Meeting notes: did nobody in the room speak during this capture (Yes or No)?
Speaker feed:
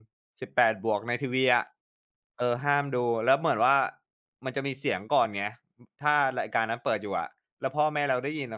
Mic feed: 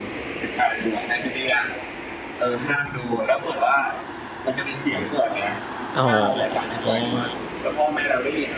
No